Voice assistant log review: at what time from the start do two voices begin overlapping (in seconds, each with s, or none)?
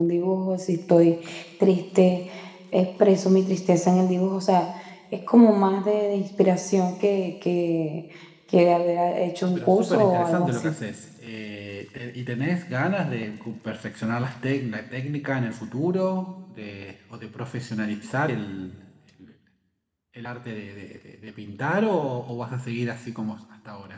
9.4 s